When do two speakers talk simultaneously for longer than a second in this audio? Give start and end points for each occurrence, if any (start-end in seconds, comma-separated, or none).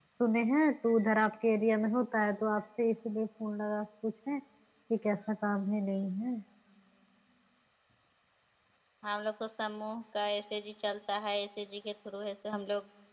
none